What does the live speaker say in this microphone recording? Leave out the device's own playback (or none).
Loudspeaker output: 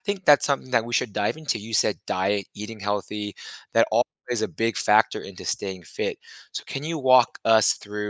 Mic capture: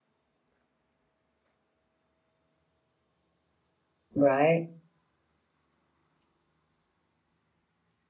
Right.